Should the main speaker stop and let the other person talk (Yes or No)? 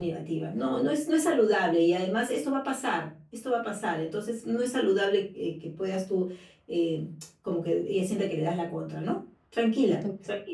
Yes